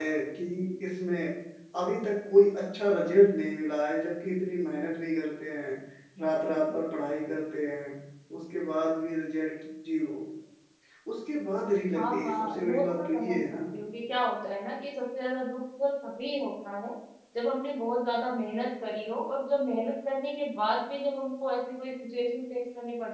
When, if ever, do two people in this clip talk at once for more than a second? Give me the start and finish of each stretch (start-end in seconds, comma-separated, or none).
11.9-13.6